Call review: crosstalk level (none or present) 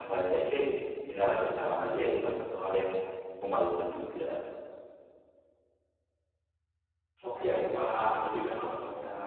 none